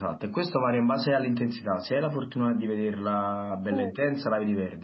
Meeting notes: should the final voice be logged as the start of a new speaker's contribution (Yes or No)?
No